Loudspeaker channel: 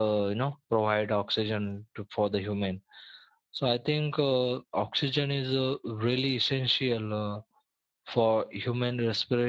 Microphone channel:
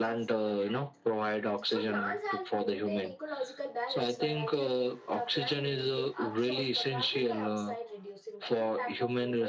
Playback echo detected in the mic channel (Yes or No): Yes